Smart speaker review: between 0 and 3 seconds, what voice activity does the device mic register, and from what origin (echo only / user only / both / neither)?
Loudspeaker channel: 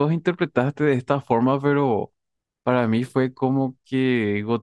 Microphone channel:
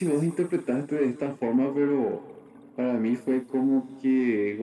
echo only